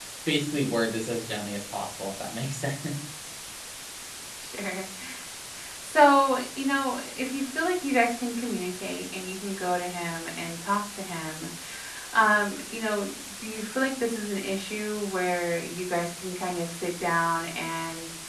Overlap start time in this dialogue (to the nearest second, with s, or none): none